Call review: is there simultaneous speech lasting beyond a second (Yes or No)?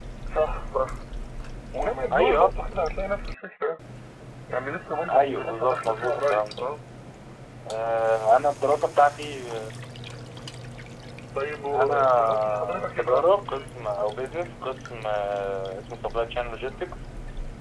Yes